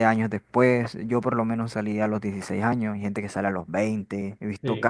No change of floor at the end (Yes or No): Yes